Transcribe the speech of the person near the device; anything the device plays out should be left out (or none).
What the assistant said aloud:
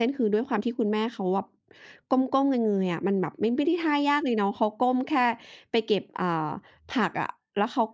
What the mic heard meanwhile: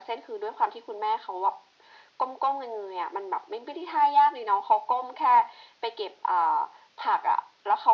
none